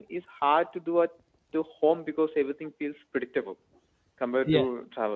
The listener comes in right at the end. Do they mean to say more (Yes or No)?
Yes